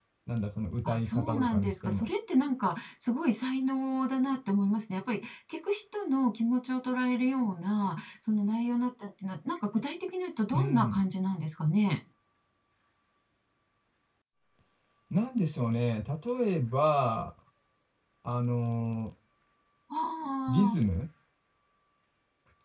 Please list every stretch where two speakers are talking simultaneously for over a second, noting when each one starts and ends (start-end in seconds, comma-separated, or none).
0.9-2.1